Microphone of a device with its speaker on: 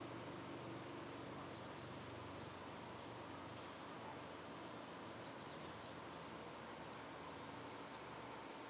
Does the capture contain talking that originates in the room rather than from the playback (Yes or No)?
No